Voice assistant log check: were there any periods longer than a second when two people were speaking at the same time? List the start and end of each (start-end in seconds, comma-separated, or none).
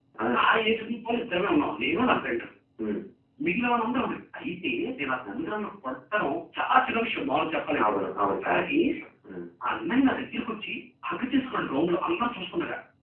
none